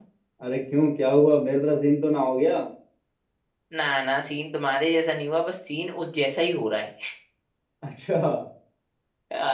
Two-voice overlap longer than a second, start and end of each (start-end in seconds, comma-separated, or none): none